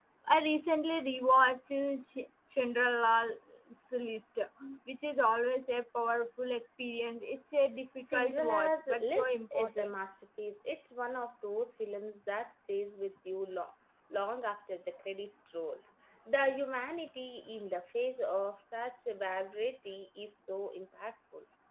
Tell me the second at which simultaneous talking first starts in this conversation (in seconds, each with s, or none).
8.0 s